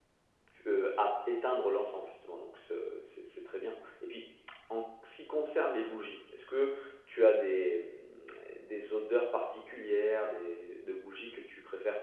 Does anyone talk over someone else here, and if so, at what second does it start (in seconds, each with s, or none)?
none